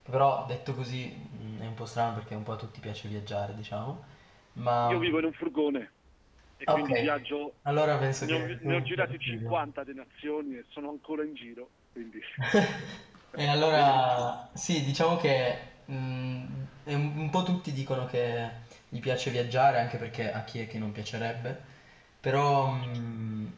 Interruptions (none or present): present